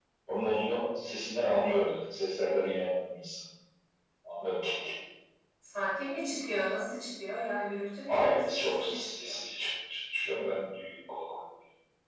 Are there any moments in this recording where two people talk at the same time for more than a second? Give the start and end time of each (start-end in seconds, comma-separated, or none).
8.1-9.3